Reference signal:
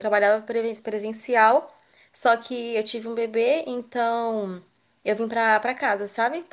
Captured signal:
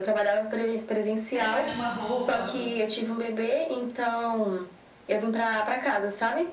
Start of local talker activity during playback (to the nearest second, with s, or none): 1 s